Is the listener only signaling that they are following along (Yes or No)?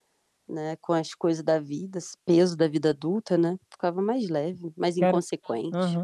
No